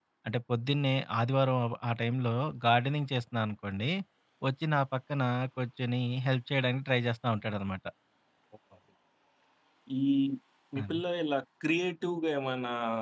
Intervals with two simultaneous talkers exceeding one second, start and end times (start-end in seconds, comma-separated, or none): none